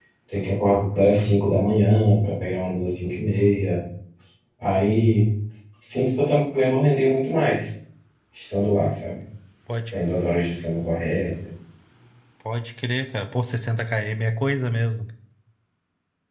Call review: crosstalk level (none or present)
none